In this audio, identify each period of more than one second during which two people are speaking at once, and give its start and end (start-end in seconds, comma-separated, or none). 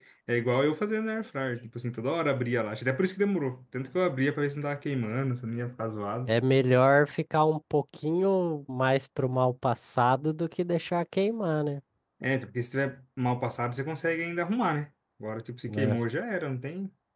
none